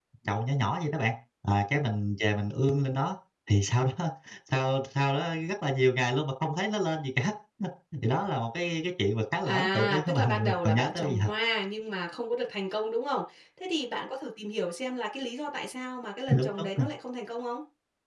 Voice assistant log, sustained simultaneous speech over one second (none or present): present